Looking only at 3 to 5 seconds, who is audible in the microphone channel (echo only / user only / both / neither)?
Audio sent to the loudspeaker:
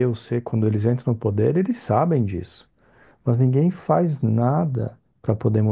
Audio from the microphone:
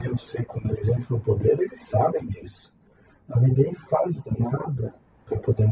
echo only